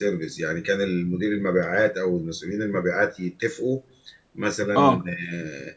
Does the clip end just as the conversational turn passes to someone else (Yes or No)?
No